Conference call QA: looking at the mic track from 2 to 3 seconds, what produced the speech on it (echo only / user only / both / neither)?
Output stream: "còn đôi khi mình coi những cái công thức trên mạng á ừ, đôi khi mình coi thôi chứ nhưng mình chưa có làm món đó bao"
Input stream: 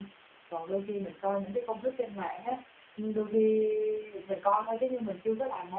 echo only